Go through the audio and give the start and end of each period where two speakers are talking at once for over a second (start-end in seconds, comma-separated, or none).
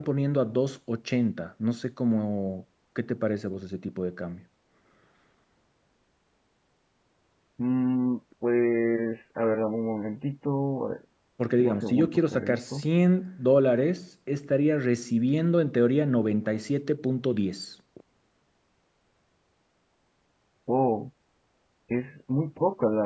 11.6-12.8